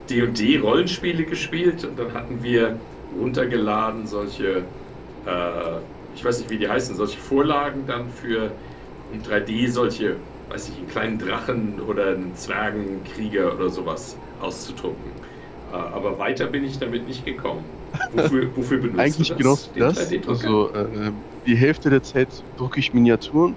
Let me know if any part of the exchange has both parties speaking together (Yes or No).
Yes